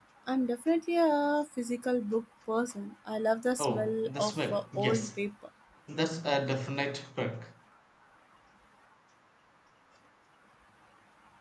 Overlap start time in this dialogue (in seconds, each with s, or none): 3.6 s